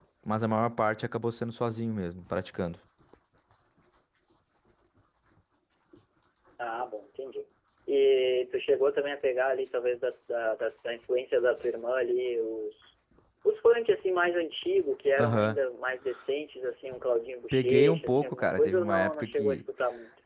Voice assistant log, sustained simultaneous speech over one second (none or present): present